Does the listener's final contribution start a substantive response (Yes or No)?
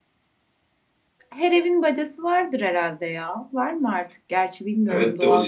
Yes